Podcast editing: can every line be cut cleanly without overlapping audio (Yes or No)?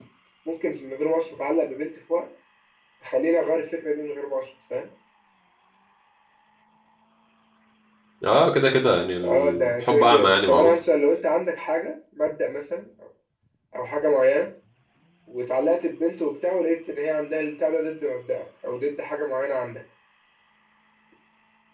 No